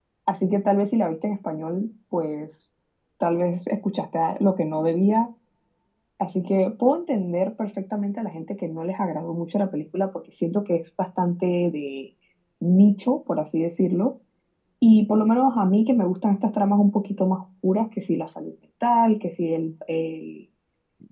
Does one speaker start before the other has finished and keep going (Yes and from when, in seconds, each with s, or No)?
No